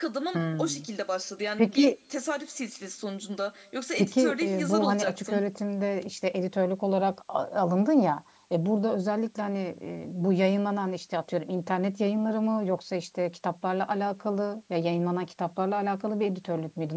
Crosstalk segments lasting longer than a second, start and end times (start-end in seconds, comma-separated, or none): 4.0-5.4